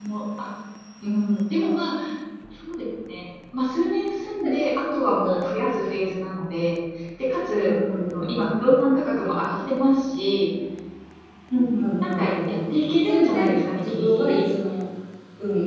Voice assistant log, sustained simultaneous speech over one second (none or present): present